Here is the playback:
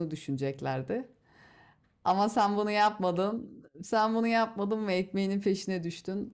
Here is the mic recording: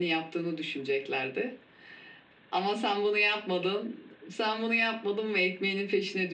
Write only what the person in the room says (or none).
none